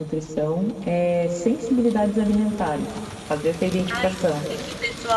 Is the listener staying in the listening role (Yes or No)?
No